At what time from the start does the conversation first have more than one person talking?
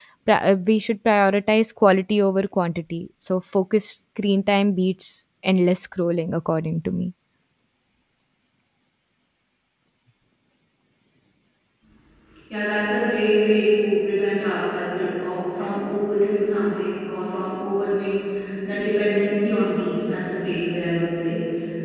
none

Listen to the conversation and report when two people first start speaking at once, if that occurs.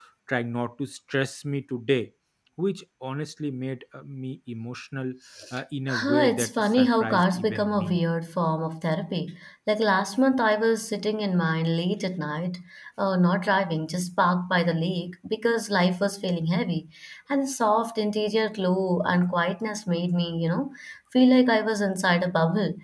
5.9 s

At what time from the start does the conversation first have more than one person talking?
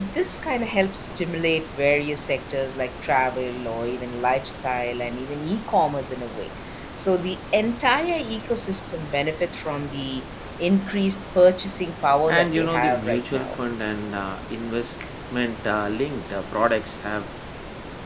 12.3 s

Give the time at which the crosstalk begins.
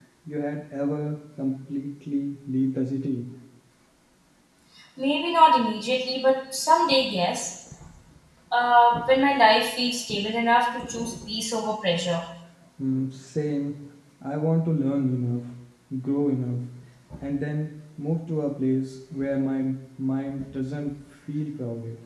none

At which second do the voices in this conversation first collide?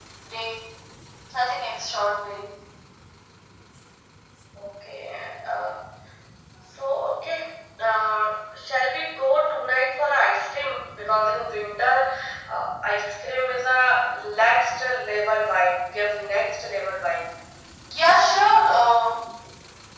none

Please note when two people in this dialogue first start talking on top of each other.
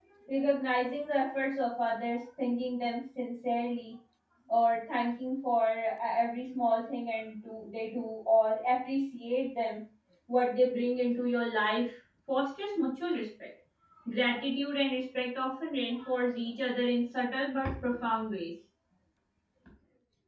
none

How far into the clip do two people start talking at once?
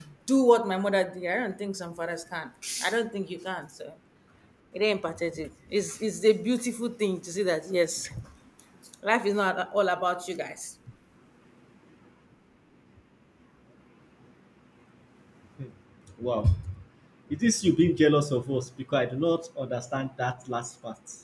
none

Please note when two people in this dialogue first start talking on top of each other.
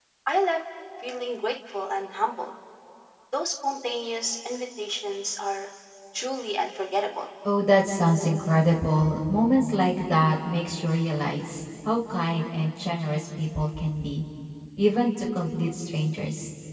none

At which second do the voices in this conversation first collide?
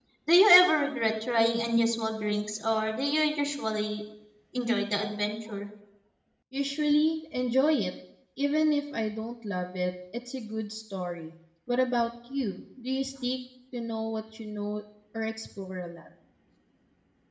none

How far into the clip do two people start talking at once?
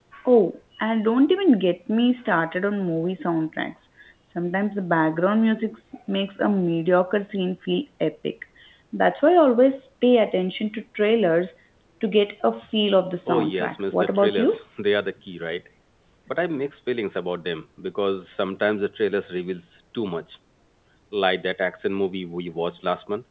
13.3 s

